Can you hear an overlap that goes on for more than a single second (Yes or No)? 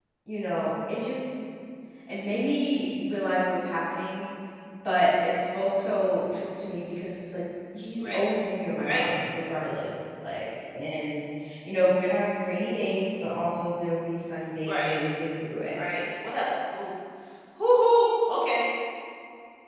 No